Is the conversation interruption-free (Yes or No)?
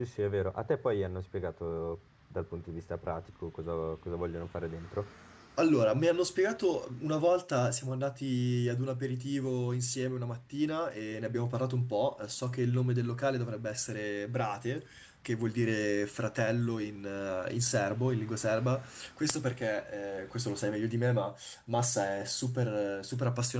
Yes